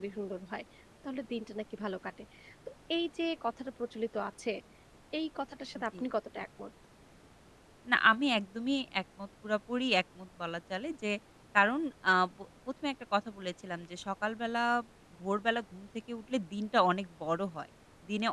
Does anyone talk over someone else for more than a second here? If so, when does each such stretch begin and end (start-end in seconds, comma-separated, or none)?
none